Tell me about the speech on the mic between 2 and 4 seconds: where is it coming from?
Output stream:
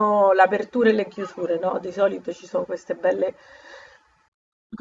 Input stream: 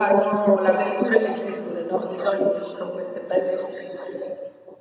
echo only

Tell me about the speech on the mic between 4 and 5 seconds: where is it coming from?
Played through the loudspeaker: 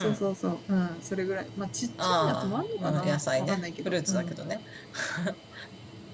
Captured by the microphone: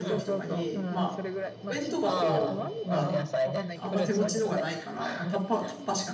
both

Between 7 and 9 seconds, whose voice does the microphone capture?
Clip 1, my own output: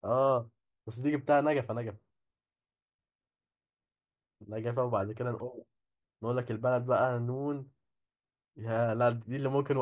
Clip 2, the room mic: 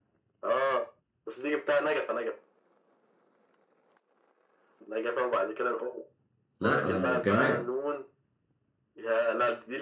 both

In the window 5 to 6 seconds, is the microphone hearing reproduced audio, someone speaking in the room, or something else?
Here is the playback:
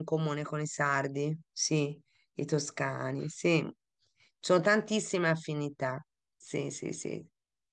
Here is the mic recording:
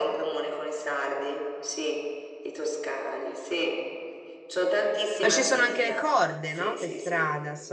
both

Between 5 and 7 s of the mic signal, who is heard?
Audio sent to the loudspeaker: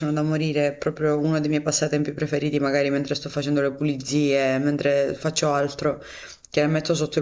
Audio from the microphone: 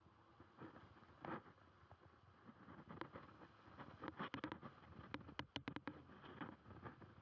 neither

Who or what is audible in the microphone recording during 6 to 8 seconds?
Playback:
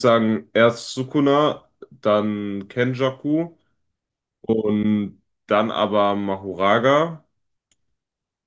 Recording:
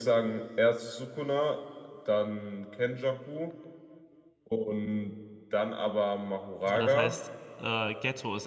both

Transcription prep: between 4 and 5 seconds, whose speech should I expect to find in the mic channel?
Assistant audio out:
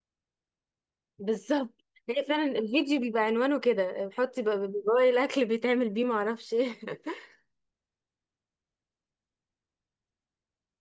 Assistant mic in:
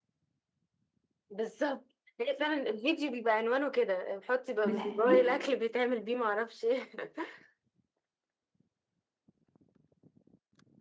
both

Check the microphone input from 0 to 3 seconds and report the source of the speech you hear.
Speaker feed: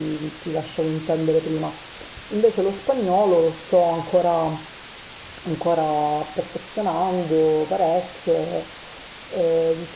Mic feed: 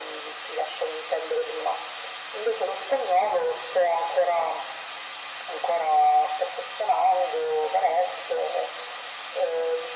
echo only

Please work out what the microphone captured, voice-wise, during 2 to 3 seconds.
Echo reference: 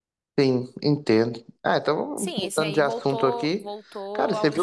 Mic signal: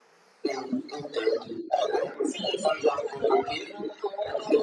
echo only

